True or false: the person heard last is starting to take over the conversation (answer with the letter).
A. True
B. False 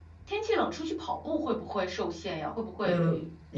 A